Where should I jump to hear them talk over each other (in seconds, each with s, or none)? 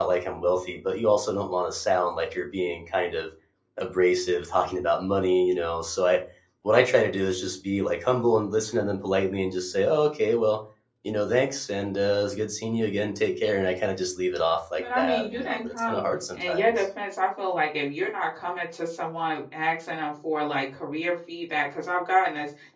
14.8 s